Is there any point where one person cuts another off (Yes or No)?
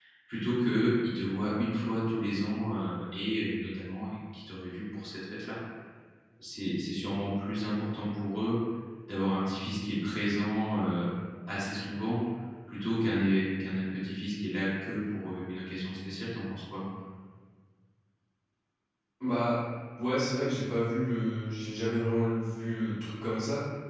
No